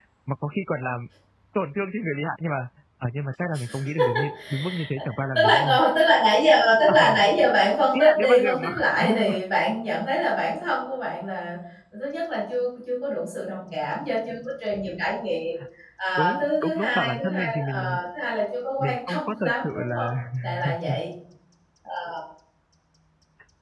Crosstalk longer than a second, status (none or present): present